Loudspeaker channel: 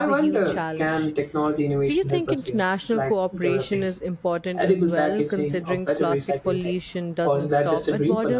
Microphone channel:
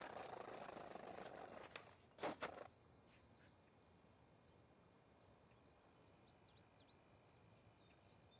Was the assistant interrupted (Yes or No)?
No